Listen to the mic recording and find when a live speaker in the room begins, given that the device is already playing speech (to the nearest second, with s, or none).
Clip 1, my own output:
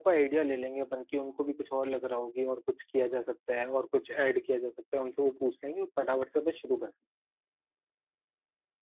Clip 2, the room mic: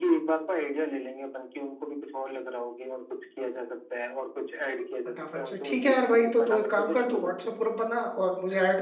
5 s